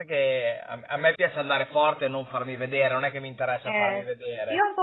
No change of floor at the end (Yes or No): No